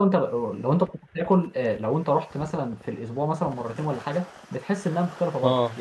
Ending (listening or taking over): listening